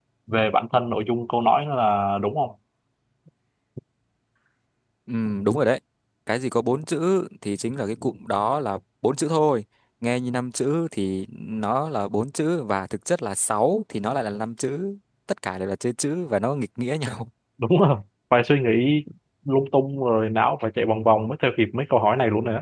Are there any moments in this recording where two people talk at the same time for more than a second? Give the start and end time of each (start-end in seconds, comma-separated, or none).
none